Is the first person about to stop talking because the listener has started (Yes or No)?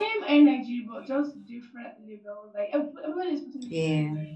No